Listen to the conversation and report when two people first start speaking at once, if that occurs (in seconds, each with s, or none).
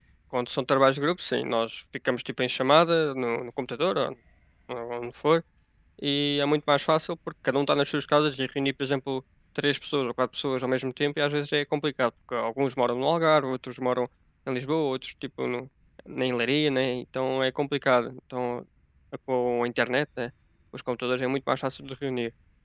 none